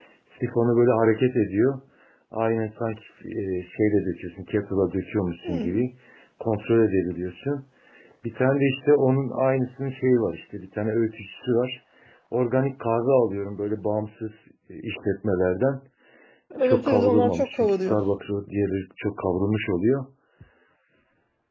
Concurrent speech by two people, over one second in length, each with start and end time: 16.6-18.0

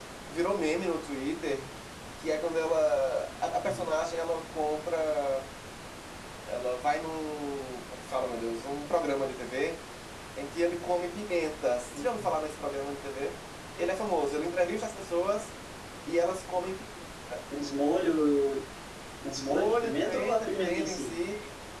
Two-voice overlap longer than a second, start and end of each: 19.5-21.1

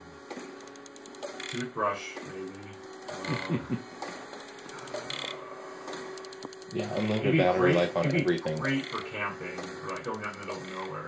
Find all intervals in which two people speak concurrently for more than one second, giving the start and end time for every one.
6.9-8.6

